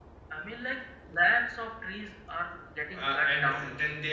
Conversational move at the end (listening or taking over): taking over